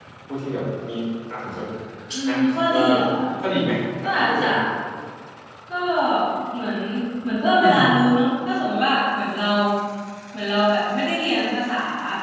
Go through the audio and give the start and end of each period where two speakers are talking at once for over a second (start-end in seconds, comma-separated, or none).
none